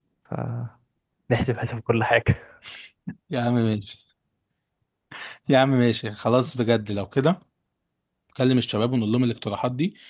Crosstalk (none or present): none